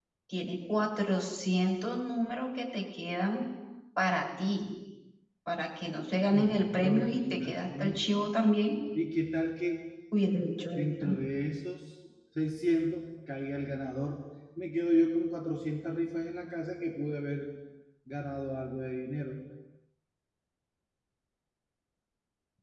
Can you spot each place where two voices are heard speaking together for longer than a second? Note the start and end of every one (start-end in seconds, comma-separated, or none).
6.3-8.0